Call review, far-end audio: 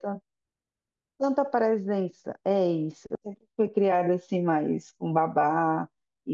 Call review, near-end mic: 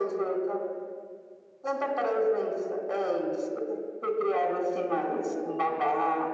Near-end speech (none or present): none